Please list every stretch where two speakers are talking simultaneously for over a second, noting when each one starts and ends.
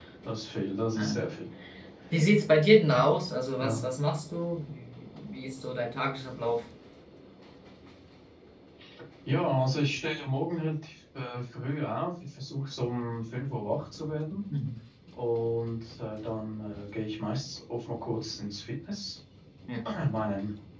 none

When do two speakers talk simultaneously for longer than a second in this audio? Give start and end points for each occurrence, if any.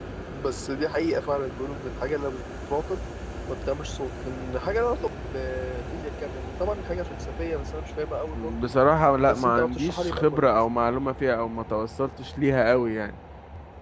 9.2-10.4

